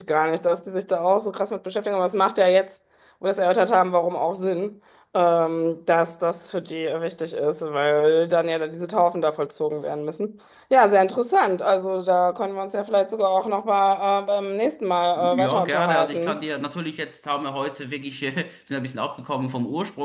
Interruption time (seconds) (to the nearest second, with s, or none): 15 s